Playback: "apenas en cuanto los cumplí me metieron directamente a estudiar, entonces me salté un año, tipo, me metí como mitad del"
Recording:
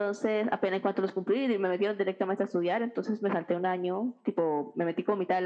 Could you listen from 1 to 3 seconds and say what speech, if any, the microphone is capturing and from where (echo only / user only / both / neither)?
echo only